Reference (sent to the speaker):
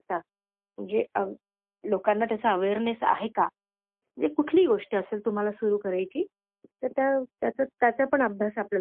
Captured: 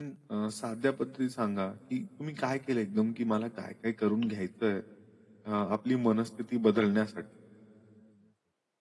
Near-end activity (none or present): present